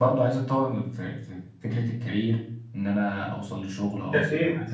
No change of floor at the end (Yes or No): Yes